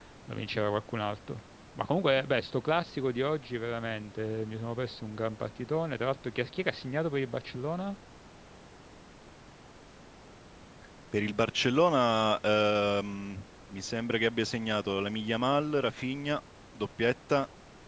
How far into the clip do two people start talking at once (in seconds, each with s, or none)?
none